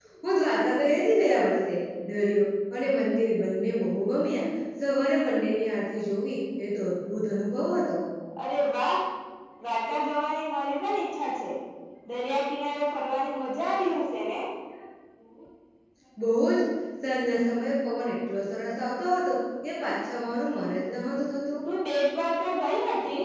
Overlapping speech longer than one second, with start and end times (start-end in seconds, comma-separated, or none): none